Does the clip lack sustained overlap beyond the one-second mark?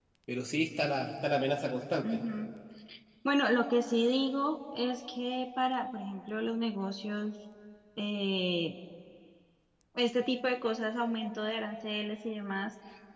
Yes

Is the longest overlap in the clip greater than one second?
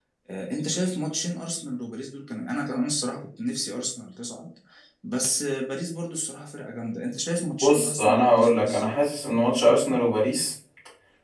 Yes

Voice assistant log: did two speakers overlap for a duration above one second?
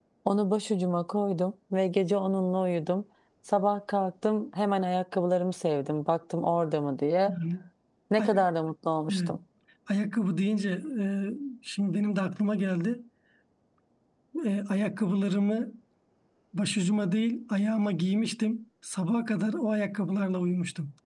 No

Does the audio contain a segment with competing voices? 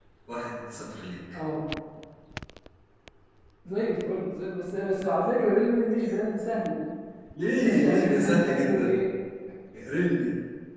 Yes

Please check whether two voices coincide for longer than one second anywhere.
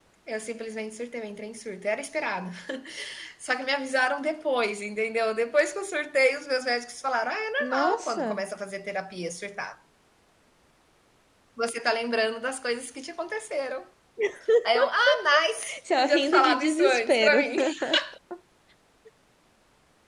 Yes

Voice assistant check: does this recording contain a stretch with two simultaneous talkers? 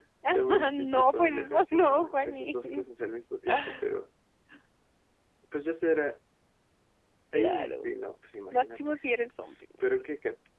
Yes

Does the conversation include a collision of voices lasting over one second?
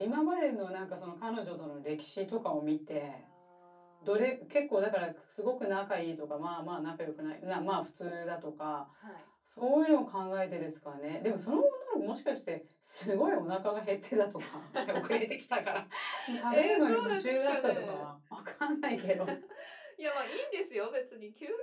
Yes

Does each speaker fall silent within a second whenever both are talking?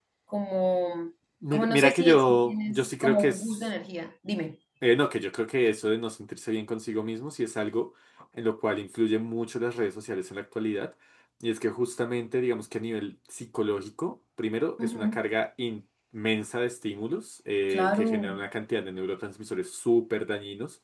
No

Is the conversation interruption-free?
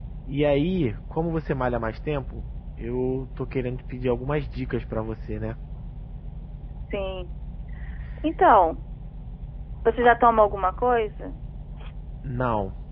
Yes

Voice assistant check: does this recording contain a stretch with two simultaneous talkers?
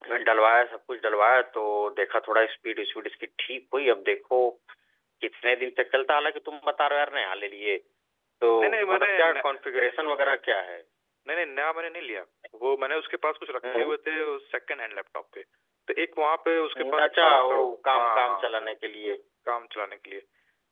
Yes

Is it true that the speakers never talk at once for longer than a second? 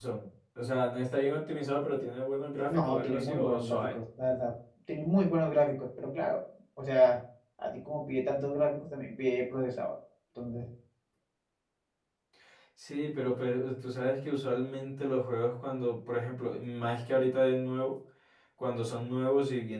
No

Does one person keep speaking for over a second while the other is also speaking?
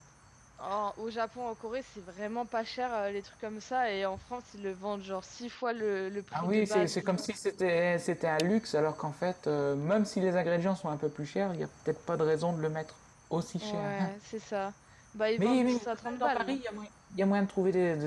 Yes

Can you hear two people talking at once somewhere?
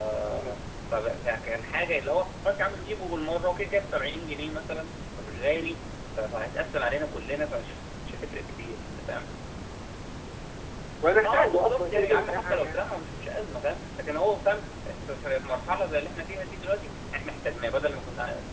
Yes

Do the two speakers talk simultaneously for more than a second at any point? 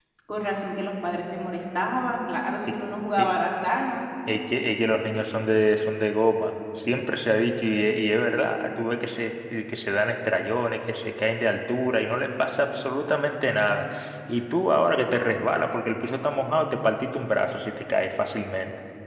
No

